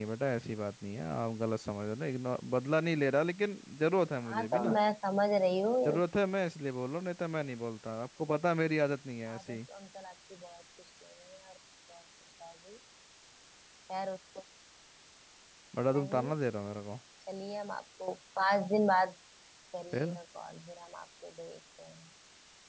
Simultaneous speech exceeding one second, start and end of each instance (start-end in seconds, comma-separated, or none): none